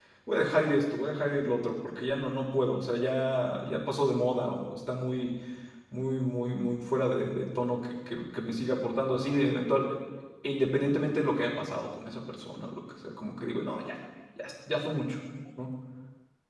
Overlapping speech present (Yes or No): No